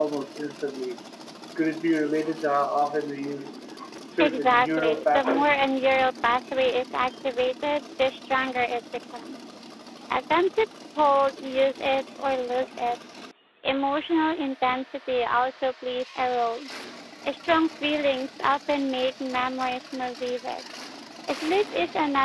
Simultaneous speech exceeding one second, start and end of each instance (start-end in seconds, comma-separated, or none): 4.2-5.6